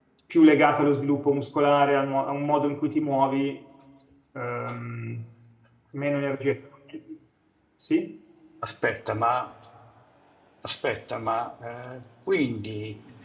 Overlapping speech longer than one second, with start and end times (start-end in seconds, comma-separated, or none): none